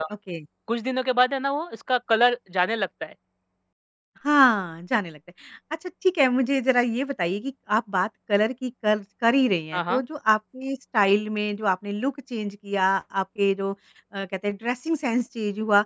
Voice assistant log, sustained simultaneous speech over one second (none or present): none